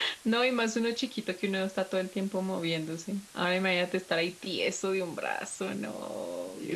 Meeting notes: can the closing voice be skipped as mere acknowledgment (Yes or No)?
No